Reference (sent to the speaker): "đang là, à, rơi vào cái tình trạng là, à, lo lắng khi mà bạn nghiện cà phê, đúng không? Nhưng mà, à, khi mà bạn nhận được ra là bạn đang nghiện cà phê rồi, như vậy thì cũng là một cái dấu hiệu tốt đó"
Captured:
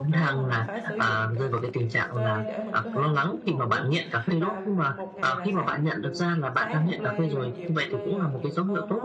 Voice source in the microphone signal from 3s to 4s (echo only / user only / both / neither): both